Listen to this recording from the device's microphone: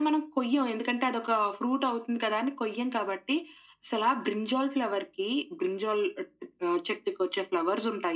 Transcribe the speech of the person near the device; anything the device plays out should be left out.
none

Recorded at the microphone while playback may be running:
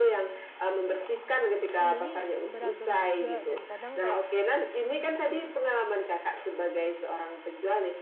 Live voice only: pembeli beragam juga dan kadang kayak,

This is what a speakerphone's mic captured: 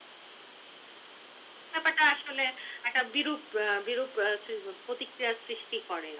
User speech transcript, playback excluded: none

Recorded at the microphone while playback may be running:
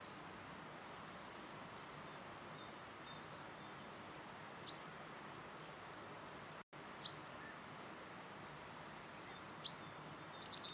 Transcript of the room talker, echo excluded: none

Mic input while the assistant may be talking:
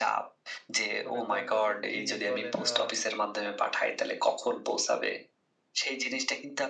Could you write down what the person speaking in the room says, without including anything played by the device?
মনে করেন যে যে, জিনিস বলেন বা

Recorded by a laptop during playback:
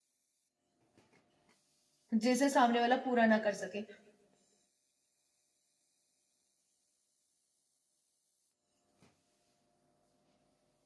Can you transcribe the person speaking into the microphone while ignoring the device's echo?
जिसे सामने वाला पूरा ना कर सके।

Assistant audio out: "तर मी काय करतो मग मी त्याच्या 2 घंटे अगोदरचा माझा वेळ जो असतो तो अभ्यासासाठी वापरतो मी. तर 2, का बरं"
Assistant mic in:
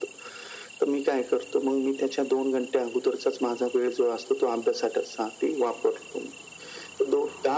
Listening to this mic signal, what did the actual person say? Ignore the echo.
none

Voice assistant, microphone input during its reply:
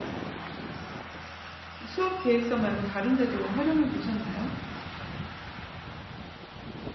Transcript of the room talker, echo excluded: 그 수업계획서 말고 다른 데도 활용해 보셨나요?

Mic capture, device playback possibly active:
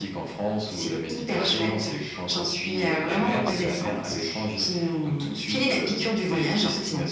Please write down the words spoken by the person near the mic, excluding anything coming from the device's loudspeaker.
Ah ça, c'est cool.

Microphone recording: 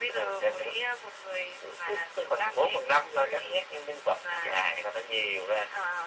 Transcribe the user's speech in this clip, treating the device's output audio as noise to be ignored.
none

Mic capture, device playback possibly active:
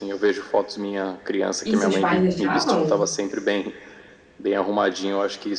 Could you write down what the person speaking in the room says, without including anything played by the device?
E seus pais deixavam?

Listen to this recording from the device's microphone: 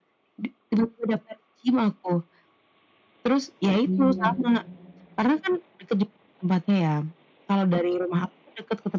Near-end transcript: Iya.

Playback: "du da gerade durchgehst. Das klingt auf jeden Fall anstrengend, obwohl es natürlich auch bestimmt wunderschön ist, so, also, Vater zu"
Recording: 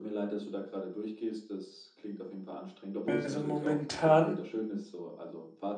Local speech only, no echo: Also momentan

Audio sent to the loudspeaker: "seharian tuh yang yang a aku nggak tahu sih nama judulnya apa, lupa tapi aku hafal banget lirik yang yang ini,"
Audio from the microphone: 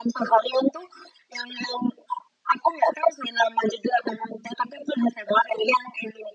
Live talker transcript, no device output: none

